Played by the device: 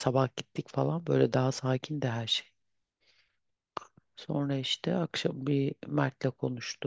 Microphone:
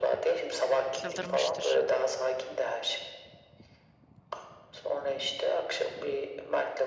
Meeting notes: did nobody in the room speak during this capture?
No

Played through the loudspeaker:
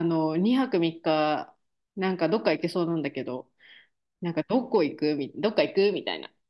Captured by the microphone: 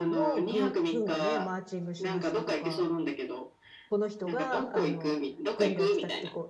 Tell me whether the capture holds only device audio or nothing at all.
No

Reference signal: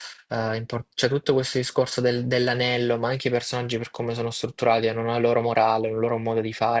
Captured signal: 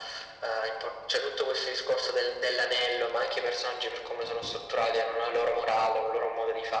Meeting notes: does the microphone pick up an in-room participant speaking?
No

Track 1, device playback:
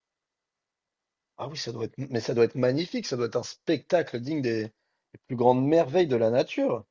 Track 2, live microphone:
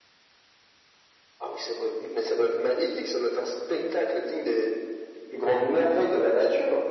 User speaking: No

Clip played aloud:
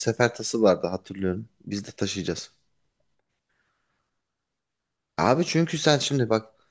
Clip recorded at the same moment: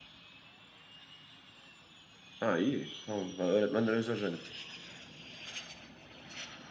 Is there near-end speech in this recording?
Yes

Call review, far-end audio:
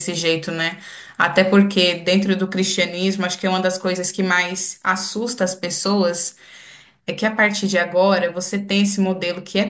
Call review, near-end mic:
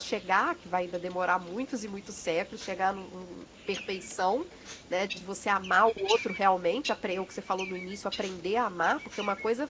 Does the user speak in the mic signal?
Yes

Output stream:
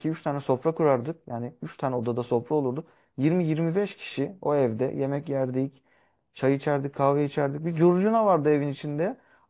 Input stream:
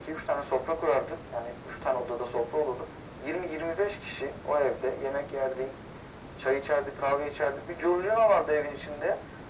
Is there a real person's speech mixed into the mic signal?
No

